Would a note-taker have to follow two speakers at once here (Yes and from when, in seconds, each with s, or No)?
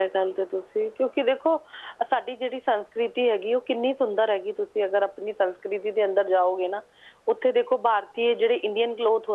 No